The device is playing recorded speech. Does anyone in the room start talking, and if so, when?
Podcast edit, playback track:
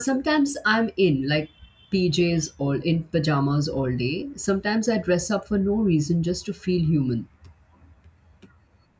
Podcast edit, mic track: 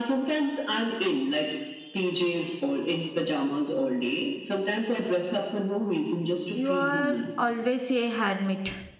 6.5 s

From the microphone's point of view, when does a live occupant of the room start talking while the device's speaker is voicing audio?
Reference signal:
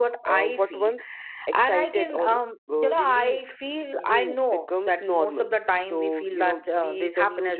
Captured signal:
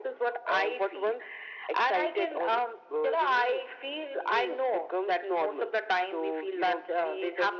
none

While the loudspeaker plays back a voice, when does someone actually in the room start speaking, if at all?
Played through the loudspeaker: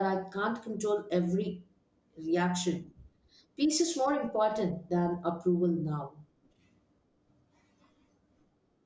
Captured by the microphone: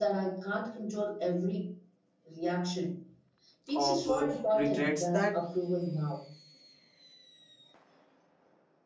3.7 s

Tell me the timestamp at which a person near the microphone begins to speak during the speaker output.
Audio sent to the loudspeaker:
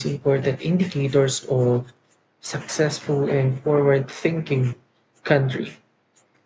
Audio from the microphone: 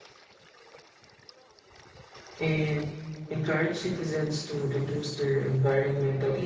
2.4 s

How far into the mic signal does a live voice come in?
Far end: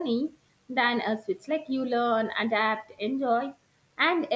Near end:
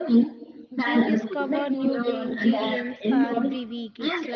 0.9 s

